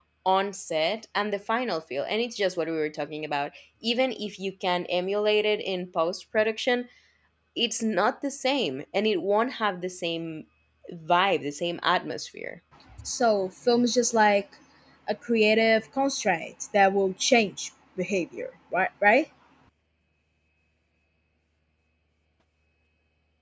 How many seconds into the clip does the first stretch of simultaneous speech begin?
none

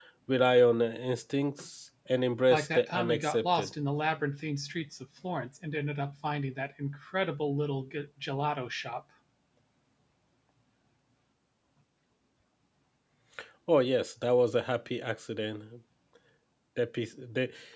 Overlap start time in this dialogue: 2.5 s

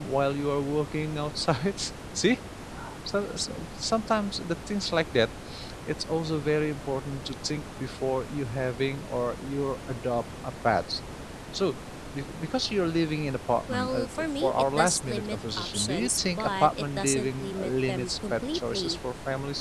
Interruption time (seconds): 13.7 s

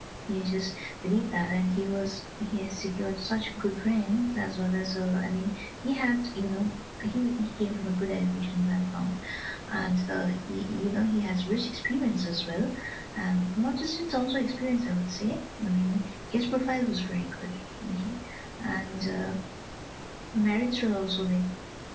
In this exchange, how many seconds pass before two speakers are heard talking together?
none

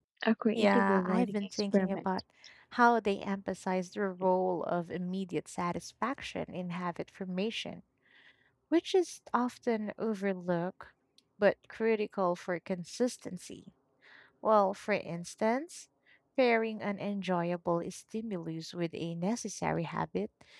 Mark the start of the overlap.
0.6 s

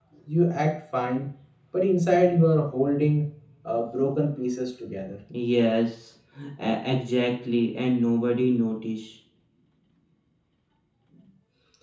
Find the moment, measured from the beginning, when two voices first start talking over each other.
none

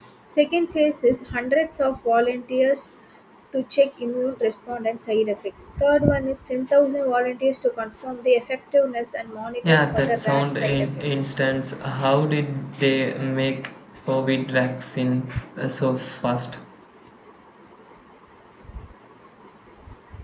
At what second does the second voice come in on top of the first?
9.6 s

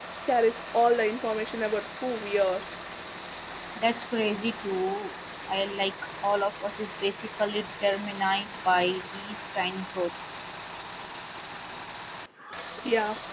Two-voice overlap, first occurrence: none

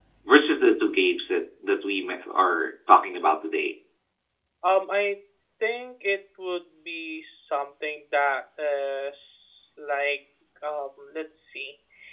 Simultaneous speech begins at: none

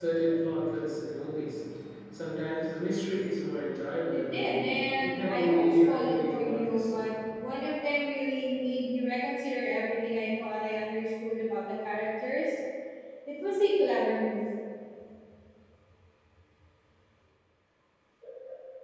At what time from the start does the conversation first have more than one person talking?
4.1 s

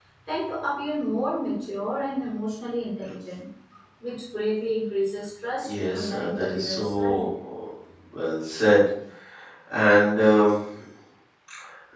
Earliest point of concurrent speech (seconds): 5.6 s

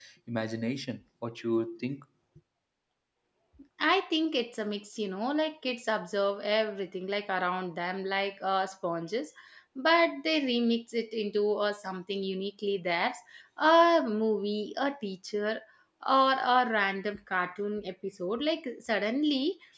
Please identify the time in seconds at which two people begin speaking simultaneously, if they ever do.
none

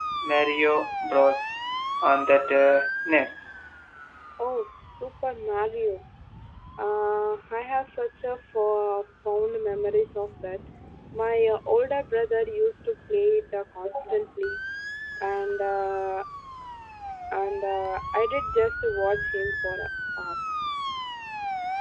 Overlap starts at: none

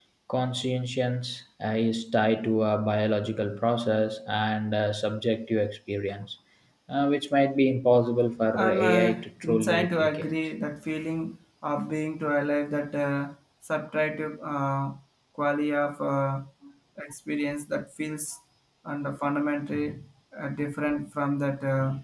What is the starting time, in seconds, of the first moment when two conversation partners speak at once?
8.5 s

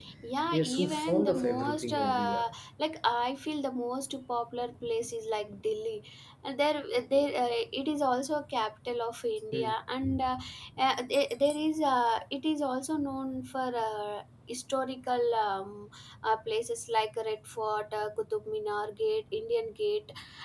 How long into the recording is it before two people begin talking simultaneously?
0.5 s

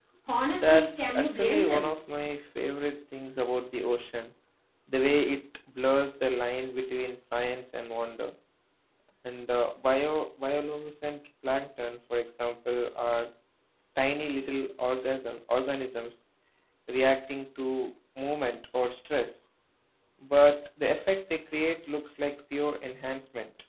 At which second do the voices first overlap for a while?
0.5 s

